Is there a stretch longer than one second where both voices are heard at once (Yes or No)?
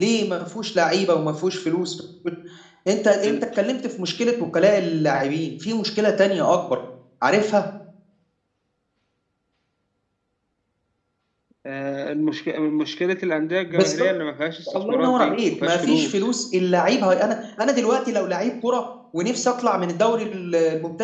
Yes